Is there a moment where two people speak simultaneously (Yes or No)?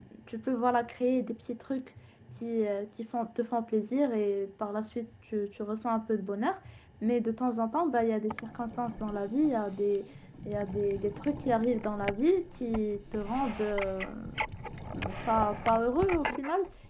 No